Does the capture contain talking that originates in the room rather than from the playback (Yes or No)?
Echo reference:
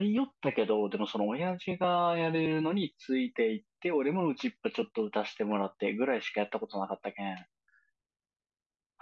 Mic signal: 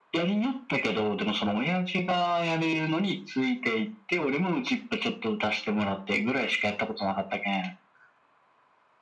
No